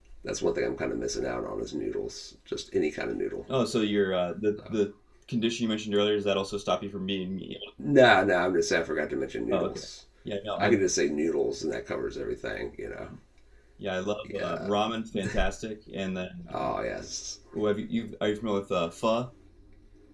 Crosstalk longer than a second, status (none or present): none